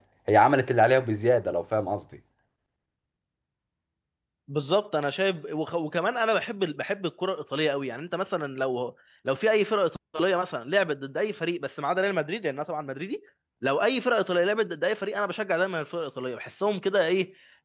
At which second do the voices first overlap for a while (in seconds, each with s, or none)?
none